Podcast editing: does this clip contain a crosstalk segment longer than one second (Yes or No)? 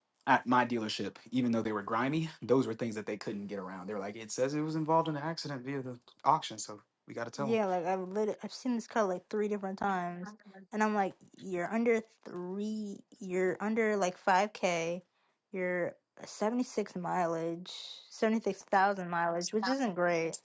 No